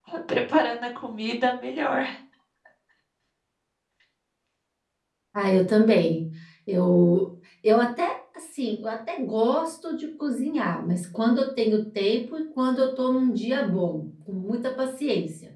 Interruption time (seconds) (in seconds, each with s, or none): none